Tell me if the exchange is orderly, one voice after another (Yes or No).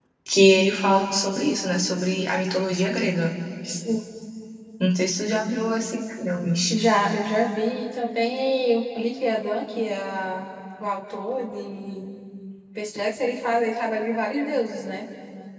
Yes